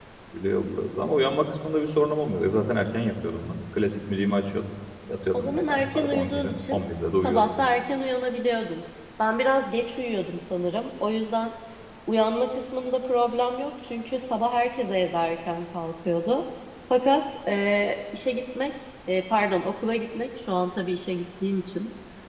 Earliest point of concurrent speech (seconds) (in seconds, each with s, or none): 5.3 s